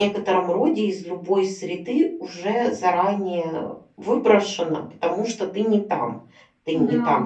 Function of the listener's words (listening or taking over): listening